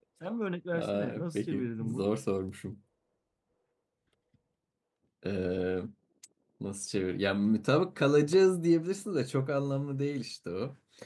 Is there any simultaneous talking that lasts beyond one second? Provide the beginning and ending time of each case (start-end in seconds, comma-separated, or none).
0.7-2.1